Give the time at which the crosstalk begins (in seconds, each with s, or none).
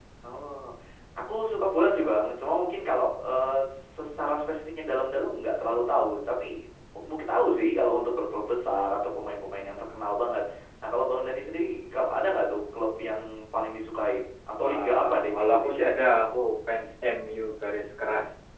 14.6 s